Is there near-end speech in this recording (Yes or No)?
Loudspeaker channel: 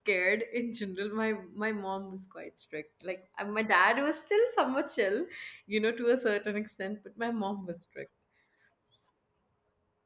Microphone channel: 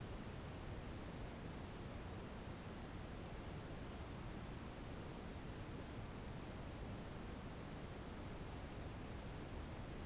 No